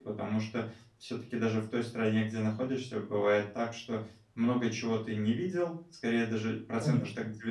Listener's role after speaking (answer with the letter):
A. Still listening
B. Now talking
A